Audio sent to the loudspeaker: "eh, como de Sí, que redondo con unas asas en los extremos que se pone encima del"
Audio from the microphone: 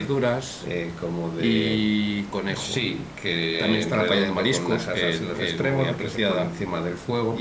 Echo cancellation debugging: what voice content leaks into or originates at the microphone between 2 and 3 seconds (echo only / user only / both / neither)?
both